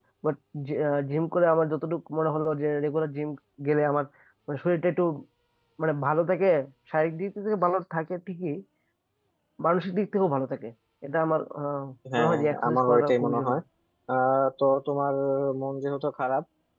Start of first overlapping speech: 12.0 s

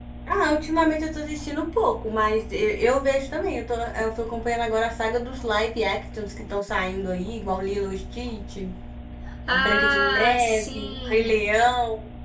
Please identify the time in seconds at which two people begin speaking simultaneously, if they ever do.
9.5 s

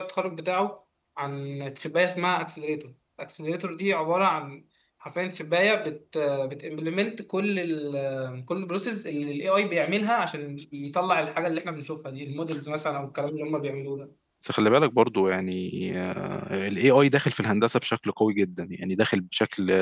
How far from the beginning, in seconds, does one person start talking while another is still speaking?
none

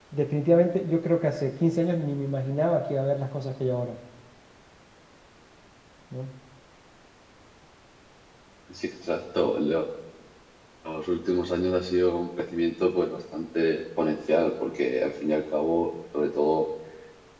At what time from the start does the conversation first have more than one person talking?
none

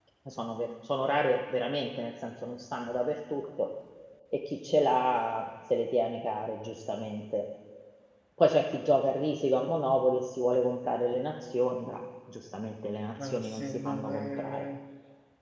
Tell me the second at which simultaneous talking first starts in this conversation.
13.2 s

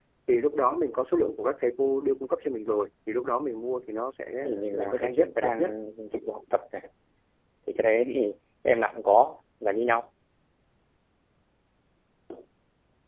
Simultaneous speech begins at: 4.3 s

